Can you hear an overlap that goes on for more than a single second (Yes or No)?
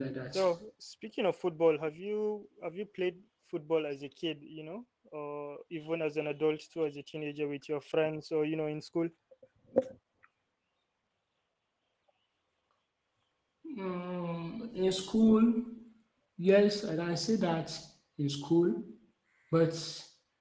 No